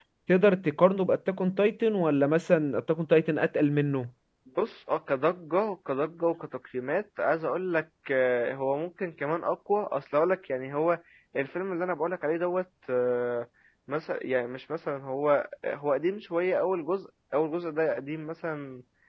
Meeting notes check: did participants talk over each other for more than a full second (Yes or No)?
No